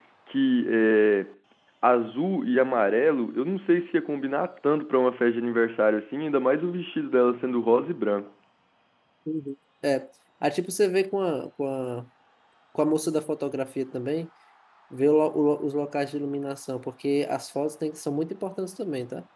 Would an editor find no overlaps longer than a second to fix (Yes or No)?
Yes